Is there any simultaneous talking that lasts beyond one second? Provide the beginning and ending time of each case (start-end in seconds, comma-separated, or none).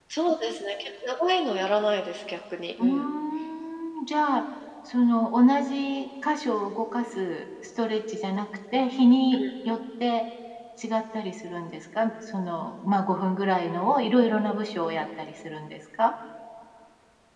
none